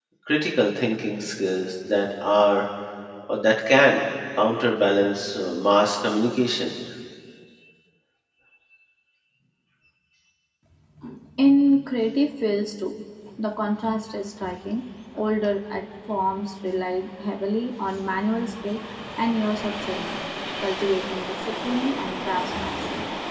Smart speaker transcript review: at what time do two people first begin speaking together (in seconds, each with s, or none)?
none